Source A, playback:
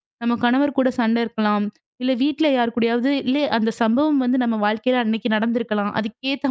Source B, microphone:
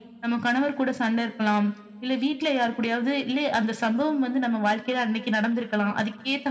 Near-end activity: none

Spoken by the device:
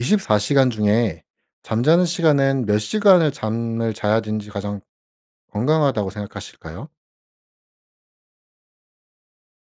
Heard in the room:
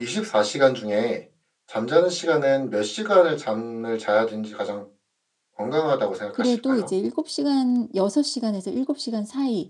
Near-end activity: present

